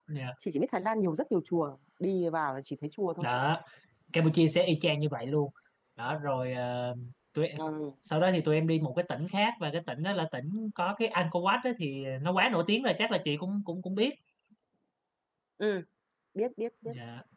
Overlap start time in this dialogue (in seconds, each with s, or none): none